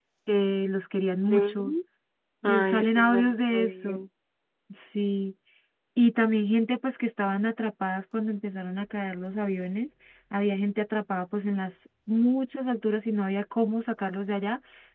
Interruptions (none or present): present